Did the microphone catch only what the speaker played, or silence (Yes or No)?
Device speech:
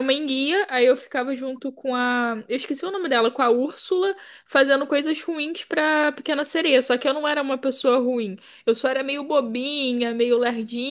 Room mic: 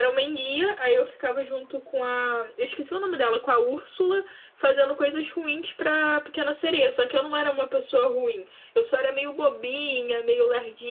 Yes